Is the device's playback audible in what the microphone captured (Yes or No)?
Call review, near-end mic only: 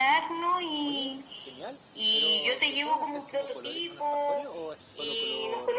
Yes